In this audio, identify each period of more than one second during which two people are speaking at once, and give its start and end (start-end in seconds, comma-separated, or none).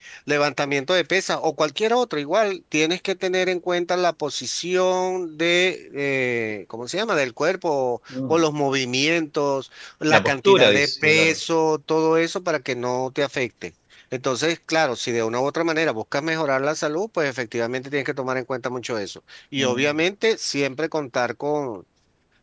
10.1-11.3